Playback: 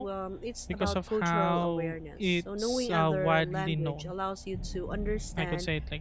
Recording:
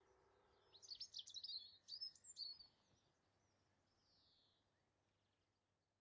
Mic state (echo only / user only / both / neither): neither